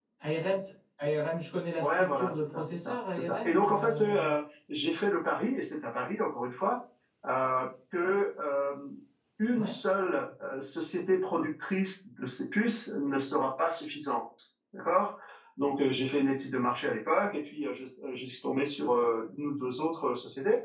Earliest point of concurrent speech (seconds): 1.8 s

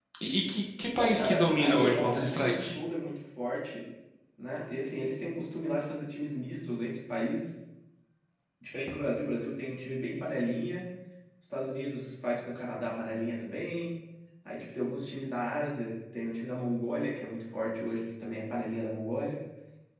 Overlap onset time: 1.0 s

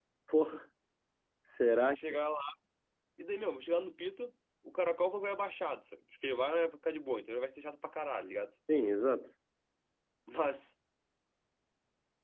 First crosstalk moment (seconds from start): none

